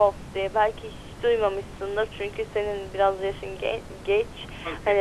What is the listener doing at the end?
listening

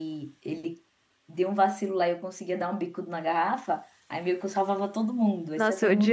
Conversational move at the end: taking over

